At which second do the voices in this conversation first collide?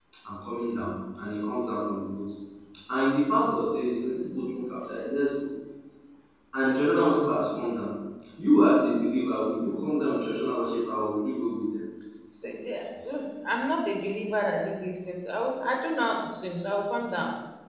none

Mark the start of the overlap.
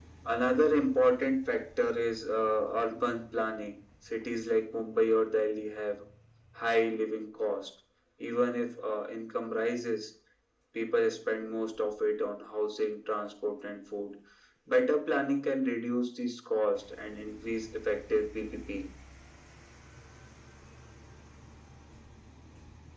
none

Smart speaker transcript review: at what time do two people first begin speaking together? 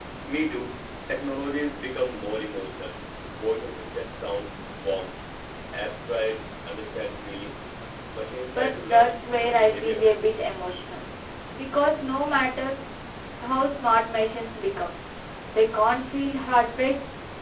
8.5 s

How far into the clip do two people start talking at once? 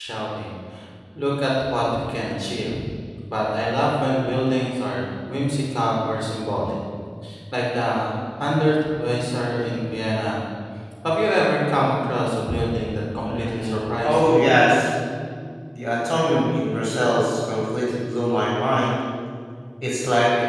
13.2 s

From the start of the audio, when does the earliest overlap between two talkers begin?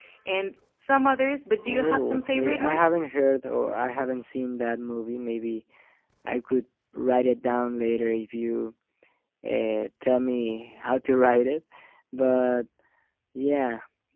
1.6 s

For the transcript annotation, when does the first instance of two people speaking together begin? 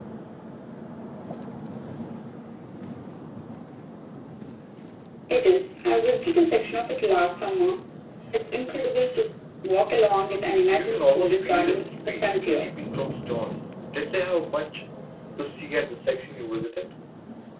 10.7 s

